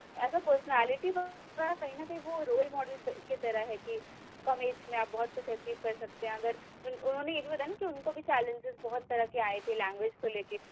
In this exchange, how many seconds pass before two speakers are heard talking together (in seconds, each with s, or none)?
none